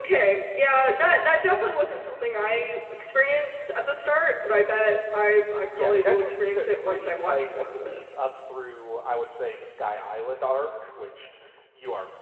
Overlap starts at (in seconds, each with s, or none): 5.6 s